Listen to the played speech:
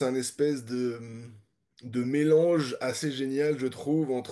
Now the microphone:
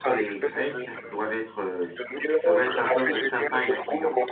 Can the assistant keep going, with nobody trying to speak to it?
No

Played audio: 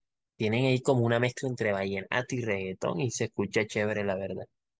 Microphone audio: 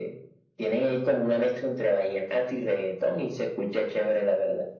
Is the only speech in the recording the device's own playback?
Yes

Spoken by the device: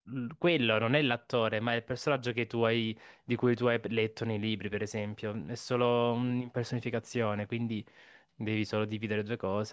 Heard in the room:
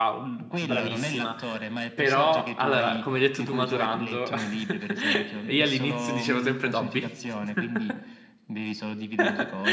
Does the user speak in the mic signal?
Yes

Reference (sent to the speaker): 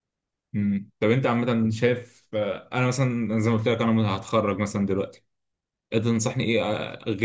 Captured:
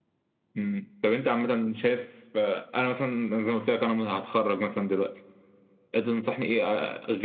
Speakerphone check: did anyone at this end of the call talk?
No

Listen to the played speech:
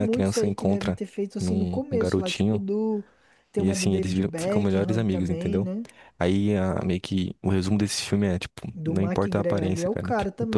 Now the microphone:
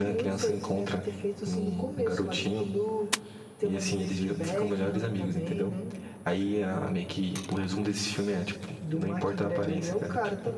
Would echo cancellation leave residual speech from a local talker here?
No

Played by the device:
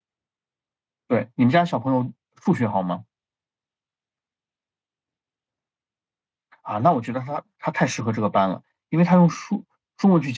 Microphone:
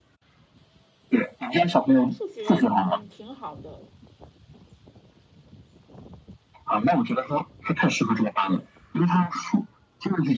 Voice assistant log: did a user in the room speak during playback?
Yes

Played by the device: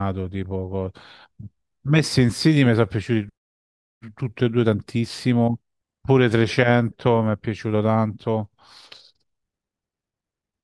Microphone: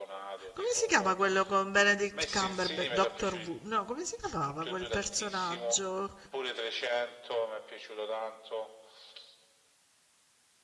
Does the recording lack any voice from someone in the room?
No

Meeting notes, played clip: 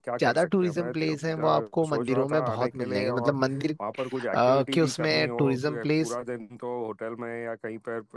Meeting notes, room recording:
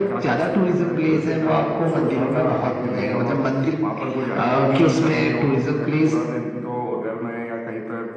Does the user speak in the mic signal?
Yes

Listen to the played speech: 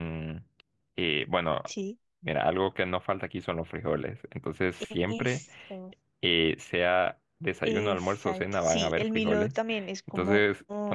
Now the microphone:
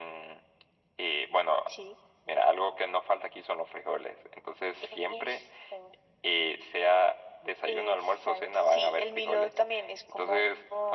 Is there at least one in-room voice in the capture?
No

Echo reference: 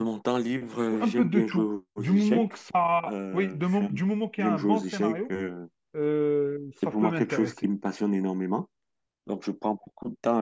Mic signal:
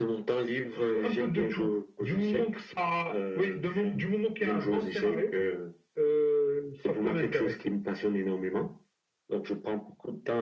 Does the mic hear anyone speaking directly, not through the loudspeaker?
No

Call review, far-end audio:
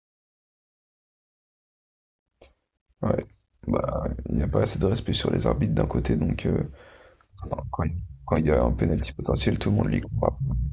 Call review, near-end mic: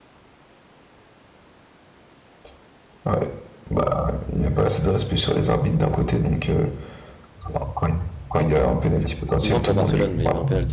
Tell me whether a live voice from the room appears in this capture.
Yes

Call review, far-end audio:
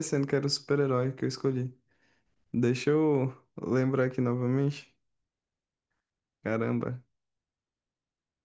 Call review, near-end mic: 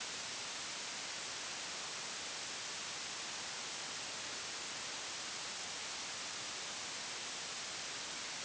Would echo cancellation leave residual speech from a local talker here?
No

